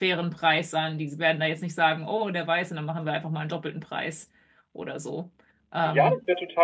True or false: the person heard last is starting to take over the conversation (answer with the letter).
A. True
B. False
A